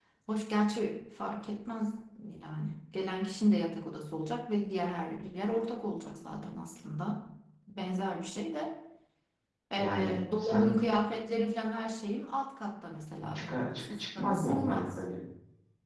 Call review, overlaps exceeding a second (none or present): present